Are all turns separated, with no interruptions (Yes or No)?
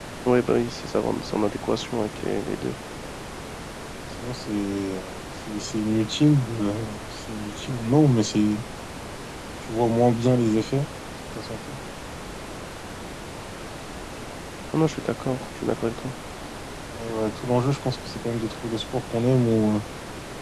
Yes